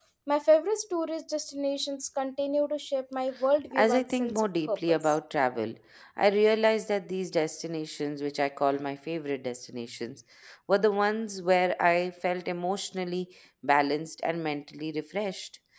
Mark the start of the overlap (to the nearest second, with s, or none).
4 s